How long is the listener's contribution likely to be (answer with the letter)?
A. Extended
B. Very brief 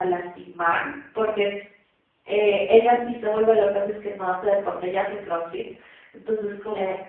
B